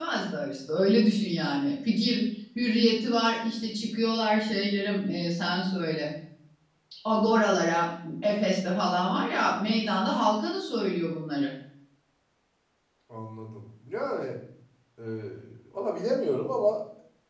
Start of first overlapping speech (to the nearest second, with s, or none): none